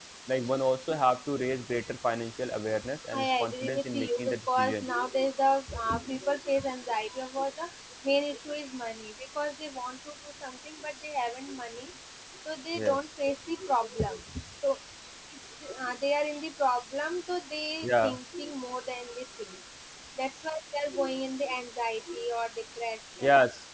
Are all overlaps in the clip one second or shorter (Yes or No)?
No